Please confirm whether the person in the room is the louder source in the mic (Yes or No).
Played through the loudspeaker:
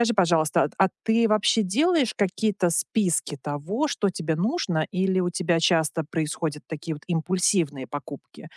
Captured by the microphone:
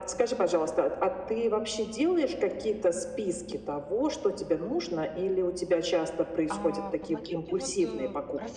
No